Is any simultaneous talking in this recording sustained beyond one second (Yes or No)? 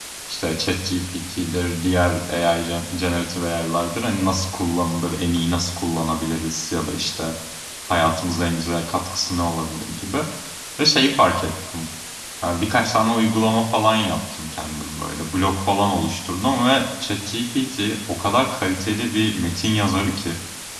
No